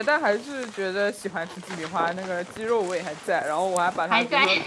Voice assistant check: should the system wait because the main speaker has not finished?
Yes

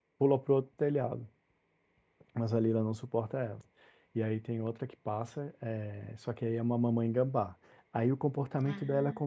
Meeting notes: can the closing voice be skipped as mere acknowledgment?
Yes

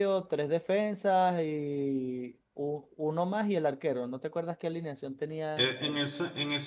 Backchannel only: No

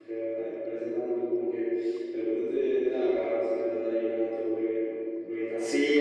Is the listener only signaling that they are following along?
No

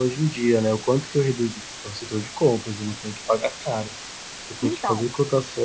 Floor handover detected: No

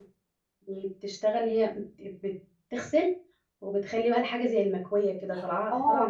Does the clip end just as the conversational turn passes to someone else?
Yes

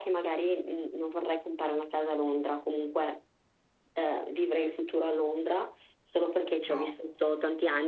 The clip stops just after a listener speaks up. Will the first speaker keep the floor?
Yes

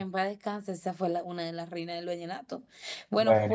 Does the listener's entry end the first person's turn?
No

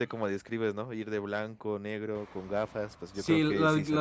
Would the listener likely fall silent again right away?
No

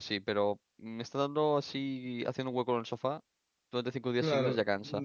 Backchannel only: No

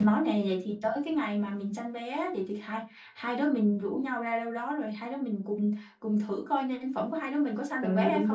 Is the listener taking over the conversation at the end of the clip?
Yes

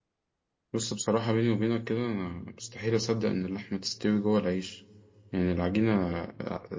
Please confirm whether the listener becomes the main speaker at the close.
No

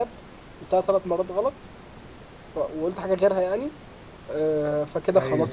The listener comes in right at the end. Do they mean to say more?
No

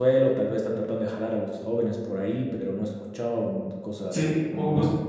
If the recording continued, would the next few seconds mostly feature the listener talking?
Yes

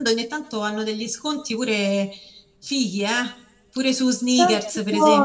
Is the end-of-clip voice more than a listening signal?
Yes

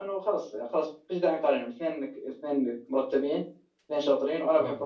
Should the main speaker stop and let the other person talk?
No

